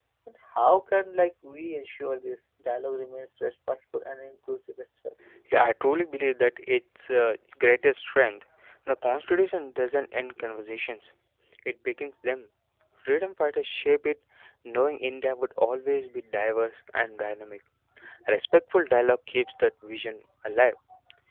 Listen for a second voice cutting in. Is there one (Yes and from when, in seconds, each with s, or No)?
No